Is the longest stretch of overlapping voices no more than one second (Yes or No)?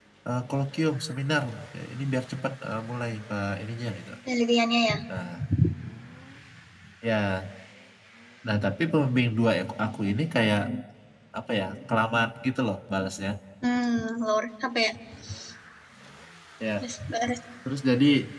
Yes